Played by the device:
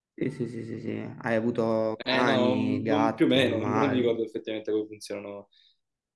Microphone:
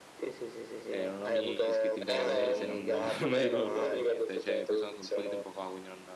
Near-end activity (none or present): present